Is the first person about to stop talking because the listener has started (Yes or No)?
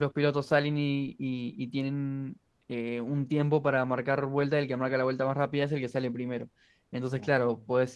No